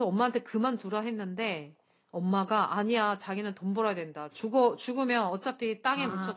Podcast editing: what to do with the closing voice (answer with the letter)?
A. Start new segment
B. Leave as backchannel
B